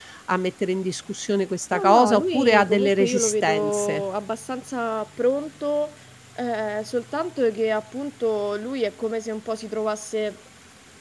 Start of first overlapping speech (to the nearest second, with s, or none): 2 s